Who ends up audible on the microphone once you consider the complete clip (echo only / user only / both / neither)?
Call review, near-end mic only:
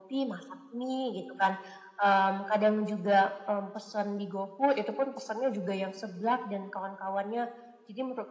echo only